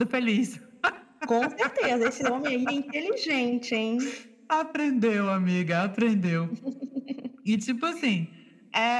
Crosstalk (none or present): none